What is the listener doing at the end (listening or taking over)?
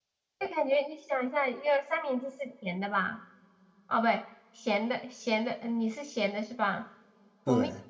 listening